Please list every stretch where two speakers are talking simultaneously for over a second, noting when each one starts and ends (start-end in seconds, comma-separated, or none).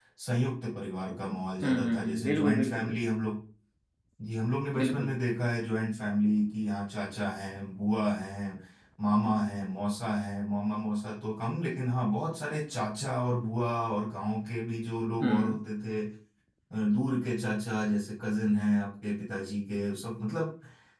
1.6-3.0